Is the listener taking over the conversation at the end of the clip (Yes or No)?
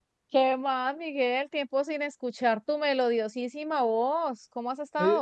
Yes